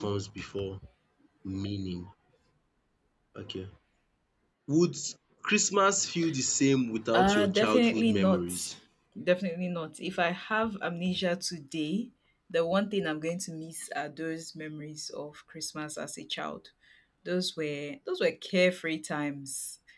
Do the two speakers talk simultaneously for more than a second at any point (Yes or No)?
Yes